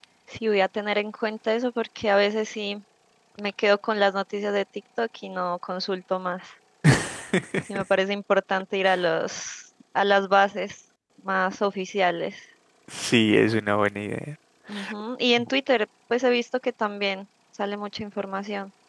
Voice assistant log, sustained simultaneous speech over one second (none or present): none